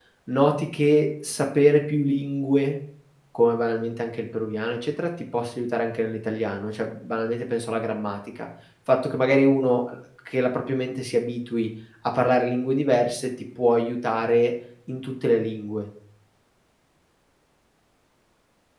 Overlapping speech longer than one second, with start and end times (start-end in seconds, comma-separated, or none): none